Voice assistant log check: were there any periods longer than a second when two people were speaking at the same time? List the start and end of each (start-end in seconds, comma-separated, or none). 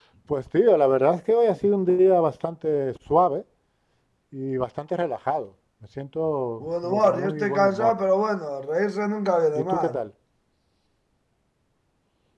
6.6-8.0